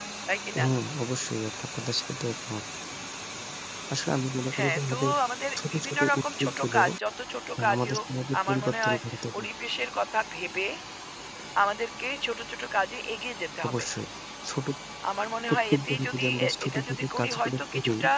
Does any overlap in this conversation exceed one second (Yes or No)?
Yes